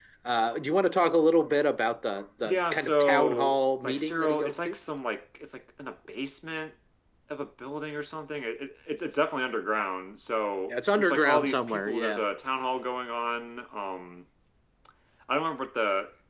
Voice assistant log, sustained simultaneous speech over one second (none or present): present